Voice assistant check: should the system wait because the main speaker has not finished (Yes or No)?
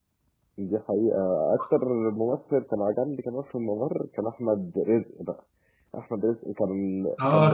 No